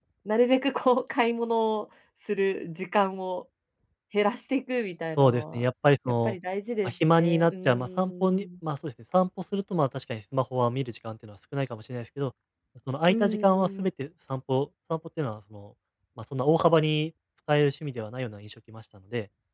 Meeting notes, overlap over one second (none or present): present